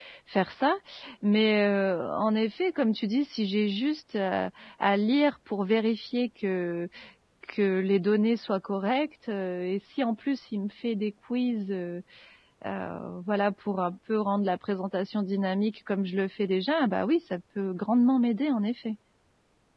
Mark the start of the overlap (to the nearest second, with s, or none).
none